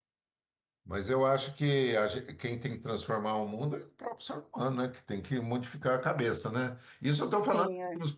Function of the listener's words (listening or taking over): listening